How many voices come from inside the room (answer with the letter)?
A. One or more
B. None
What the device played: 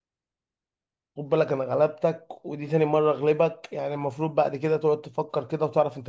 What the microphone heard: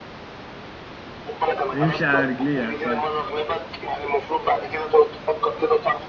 A